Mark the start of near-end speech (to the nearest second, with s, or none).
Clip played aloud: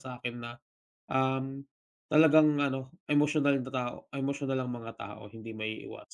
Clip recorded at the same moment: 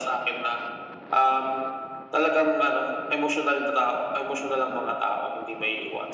none